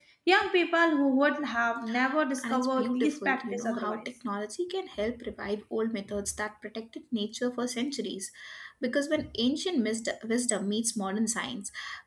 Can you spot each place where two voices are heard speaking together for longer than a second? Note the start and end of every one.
2.4-4.0

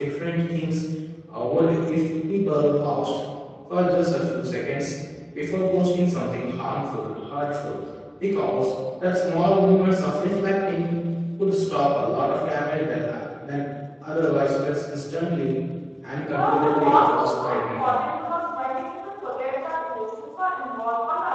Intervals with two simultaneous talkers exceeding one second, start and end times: 16.3-17.9

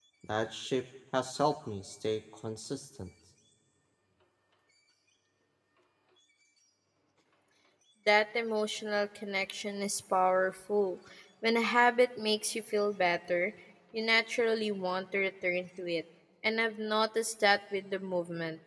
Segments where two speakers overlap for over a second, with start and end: none

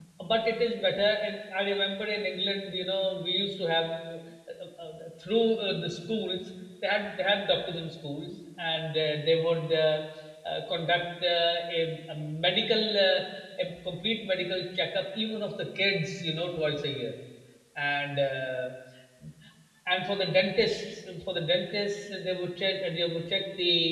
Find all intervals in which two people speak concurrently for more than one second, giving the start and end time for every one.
none

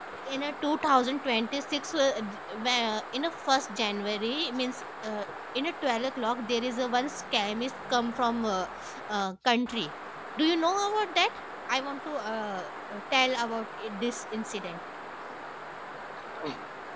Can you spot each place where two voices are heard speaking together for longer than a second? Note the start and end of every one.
none

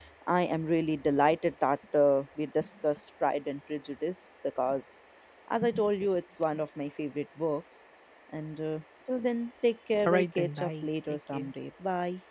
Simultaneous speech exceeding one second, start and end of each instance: 10.1-11.5

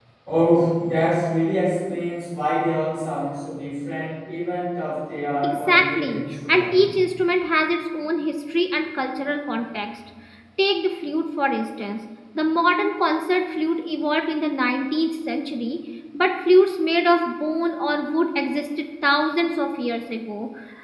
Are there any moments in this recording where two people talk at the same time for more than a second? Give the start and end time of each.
5.4-6.9

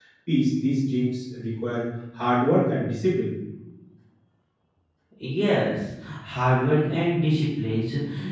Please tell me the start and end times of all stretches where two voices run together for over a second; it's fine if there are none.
none

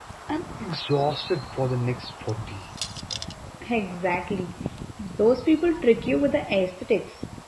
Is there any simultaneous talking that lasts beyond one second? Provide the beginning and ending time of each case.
none

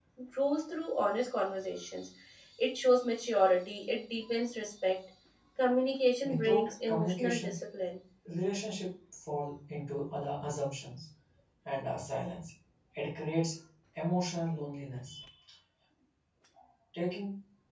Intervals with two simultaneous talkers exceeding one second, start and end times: 6.2-7.6

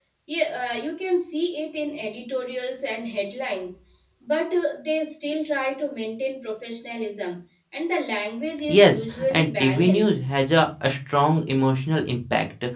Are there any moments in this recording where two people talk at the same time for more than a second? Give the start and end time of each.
8.7-10.2

